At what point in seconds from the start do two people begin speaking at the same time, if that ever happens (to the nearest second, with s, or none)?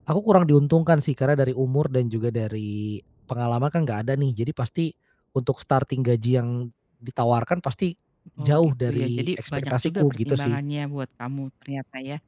8 s